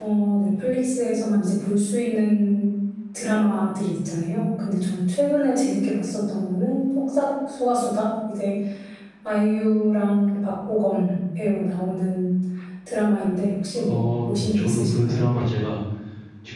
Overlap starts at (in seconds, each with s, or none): 13.8 s